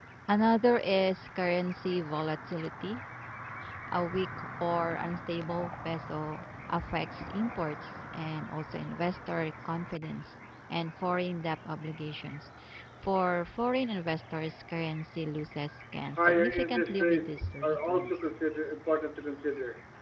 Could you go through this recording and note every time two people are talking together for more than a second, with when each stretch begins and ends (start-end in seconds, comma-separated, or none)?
16.2-18.1